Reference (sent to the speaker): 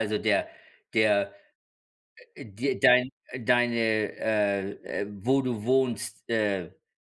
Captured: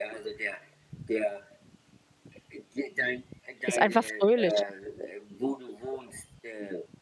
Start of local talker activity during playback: 3.6 s

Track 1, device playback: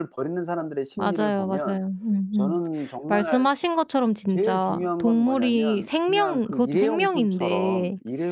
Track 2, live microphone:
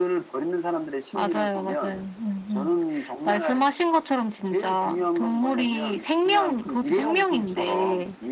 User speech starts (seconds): none

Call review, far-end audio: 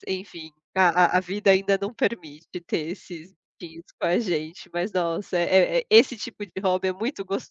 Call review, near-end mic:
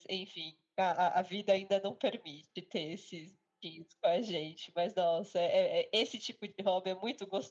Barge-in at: none

